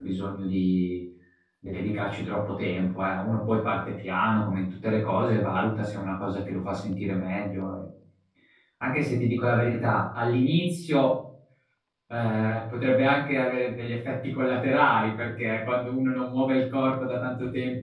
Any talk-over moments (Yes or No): No